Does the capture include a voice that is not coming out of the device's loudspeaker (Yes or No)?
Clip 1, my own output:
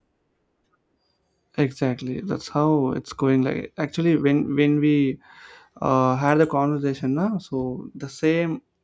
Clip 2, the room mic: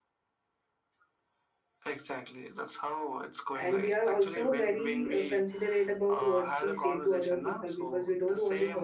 Yes